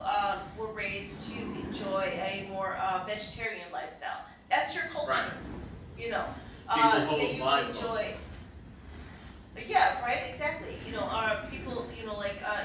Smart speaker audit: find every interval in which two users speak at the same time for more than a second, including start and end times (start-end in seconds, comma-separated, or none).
6.7-8.0